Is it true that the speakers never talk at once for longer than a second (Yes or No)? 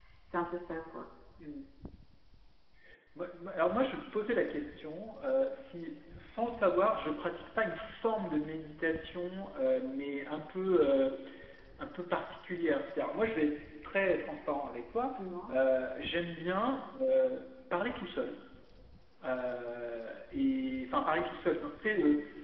Yes